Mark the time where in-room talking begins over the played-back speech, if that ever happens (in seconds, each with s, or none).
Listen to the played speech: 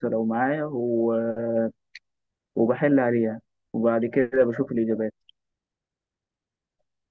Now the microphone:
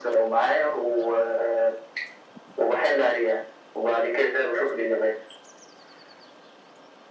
none